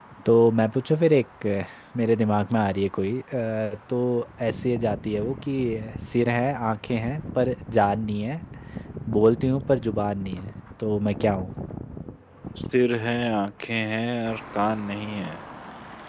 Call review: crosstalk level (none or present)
none